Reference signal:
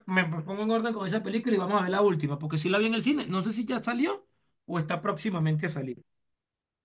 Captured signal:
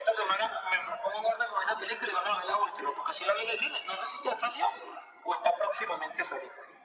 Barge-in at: none

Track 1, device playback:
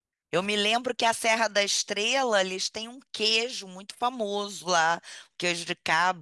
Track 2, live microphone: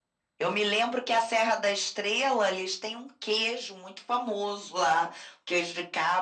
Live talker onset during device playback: none

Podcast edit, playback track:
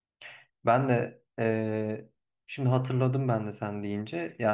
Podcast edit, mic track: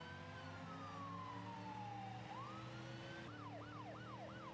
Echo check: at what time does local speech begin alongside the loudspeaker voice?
none

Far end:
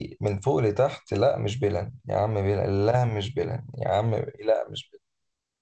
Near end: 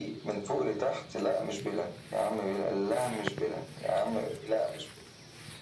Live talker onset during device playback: none

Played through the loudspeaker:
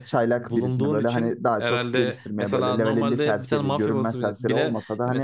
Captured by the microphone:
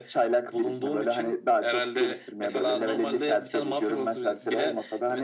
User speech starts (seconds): none

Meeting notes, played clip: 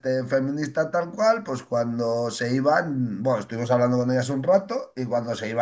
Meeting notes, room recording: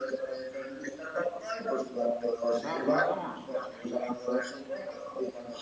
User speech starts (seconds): 2.5 s

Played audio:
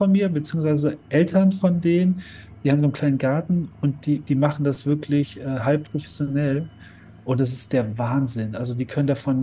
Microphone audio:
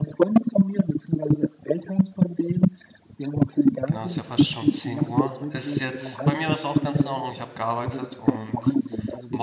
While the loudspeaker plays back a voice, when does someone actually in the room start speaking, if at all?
3.9 s

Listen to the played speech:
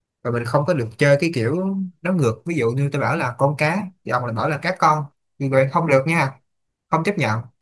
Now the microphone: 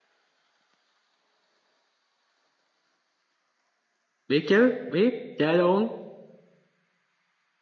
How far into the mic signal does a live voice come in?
4.3 s

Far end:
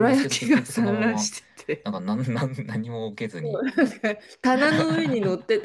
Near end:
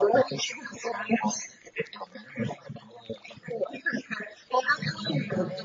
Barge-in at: 4.6 s

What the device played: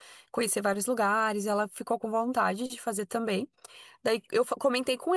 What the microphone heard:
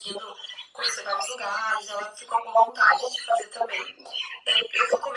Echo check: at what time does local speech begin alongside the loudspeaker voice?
none

